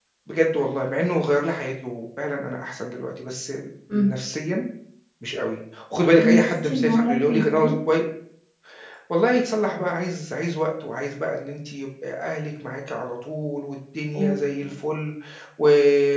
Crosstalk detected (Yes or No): Yes